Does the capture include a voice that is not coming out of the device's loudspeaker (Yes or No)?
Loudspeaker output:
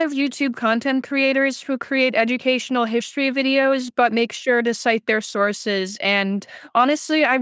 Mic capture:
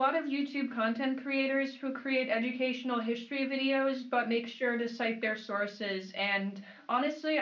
No